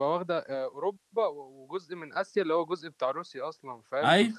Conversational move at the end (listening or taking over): listening